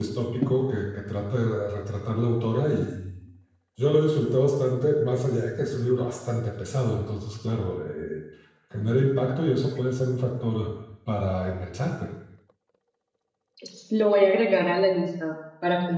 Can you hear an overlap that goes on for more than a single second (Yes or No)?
No